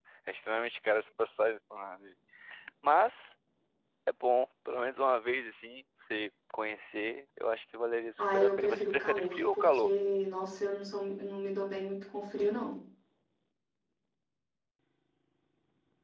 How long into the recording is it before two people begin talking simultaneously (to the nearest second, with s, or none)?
8 s